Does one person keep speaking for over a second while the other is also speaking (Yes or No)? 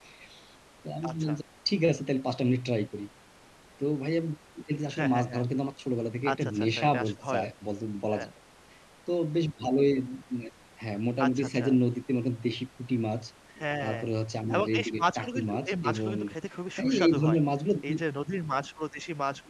Yes